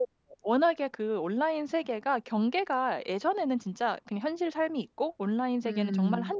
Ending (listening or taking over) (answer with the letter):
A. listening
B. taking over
A